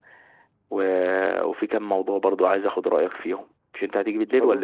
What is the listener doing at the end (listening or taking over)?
taking over